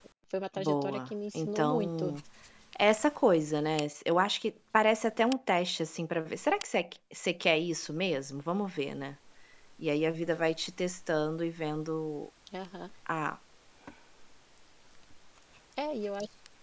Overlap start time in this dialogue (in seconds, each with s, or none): 0.6 s